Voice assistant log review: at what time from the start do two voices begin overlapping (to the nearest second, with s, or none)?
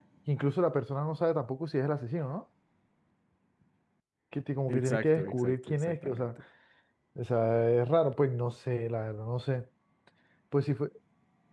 5 s